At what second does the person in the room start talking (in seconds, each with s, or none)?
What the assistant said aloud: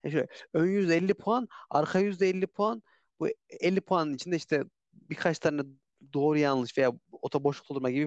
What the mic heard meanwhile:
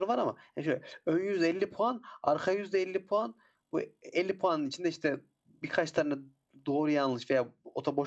none